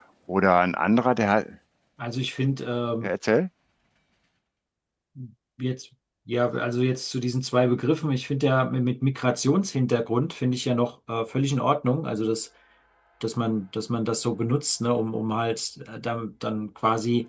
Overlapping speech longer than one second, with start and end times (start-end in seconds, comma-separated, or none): none